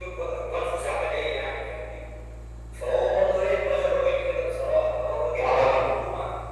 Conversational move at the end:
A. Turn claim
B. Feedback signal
B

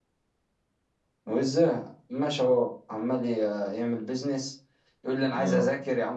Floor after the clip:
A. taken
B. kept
B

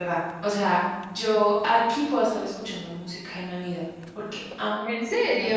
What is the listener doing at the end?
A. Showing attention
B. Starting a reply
A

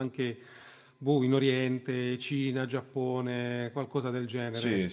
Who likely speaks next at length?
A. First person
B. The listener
B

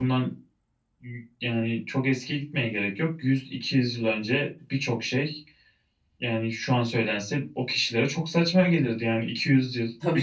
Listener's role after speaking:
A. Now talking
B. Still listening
B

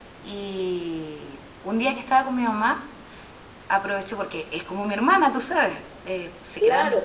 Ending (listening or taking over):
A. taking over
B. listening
A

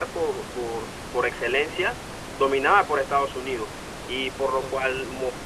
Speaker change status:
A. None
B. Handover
A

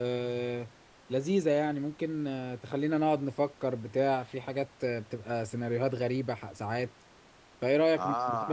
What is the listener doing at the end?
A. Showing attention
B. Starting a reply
B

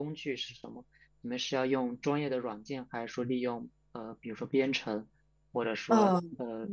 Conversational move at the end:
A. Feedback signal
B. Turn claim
B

